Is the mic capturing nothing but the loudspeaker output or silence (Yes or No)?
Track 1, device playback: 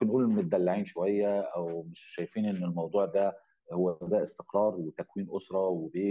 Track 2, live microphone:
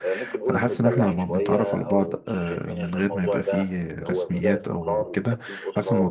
No